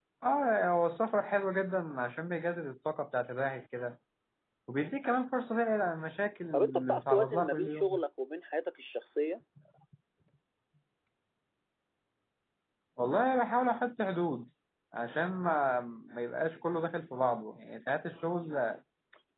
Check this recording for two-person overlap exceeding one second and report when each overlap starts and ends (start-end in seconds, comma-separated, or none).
6.5-8.0